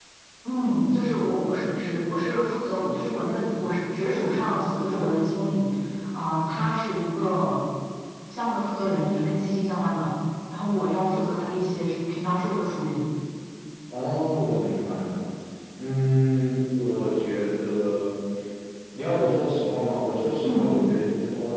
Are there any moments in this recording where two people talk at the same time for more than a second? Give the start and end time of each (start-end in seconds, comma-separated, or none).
none